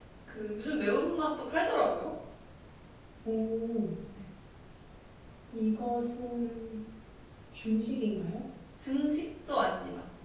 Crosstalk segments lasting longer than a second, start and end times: none

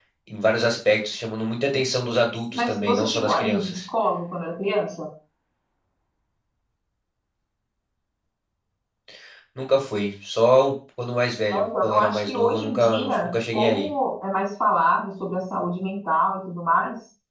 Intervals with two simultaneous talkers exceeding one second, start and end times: 2.5-3.9, 11.5-13.9

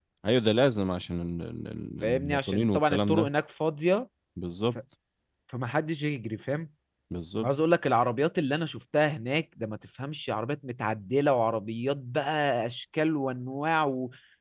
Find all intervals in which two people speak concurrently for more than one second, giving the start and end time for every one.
2.0-3.3

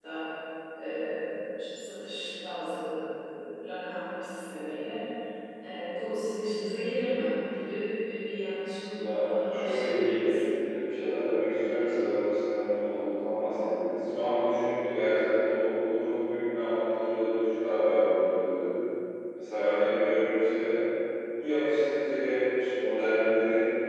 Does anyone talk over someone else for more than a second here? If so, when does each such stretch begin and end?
8.9-10.4

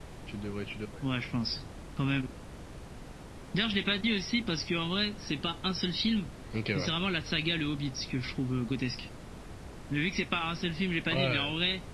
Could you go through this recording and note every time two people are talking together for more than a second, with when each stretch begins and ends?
none

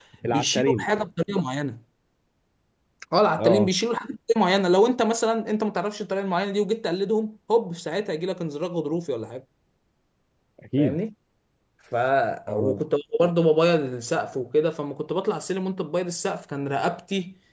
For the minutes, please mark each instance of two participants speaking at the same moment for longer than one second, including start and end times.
none

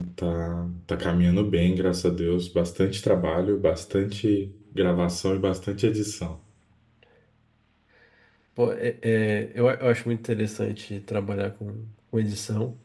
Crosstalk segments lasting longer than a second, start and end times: none

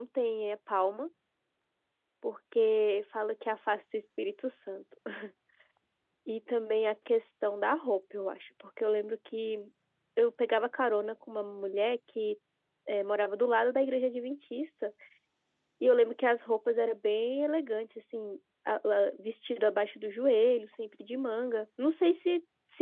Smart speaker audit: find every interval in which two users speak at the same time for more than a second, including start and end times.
none

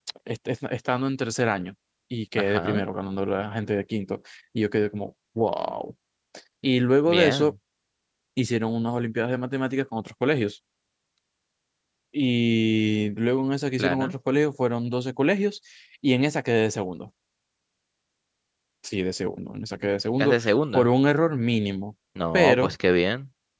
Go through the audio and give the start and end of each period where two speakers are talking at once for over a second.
none

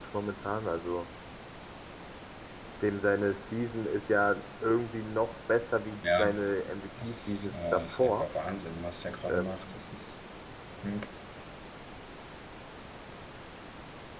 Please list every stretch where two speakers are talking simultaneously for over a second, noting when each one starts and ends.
7.0-8.3

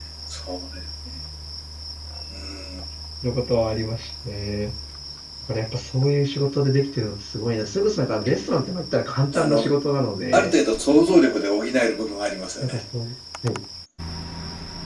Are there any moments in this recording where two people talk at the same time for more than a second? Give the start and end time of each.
none

